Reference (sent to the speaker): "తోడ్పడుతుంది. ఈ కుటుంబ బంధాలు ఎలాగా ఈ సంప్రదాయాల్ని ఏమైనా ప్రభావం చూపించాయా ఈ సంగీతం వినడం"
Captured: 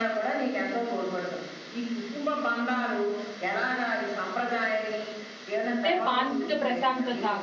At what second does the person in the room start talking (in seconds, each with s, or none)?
5.7 s